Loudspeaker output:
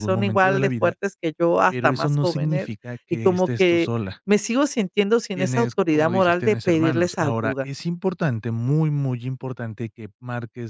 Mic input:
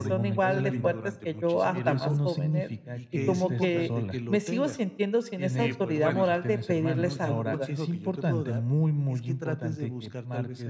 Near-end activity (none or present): present